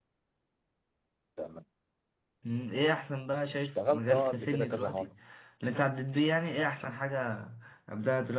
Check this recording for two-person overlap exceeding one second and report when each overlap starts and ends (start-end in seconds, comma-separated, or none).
3.8-5.1